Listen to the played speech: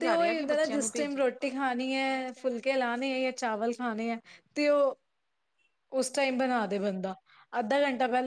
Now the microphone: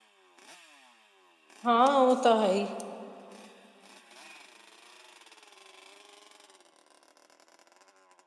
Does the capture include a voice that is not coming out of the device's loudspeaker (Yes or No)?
Yes